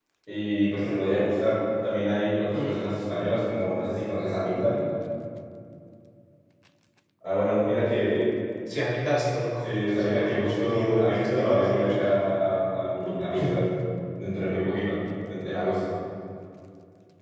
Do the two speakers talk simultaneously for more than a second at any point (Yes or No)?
Yes